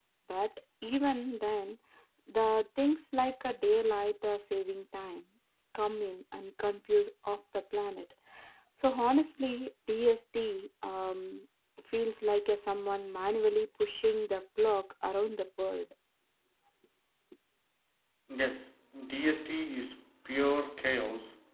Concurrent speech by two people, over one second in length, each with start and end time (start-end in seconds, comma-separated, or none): none